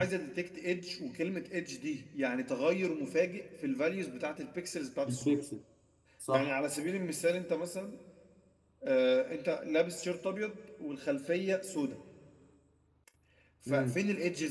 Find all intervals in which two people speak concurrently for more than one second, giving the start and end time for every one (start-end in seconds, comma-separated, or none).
none